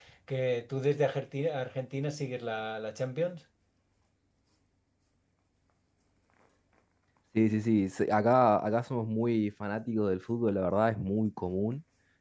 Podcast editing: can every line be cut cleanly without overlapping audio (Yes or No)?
Yes